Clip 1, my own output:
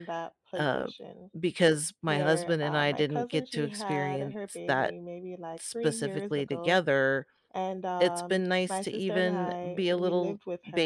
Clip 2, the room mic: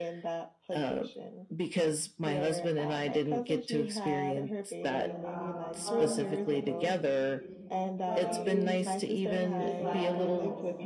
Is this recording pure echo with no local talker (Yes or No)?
No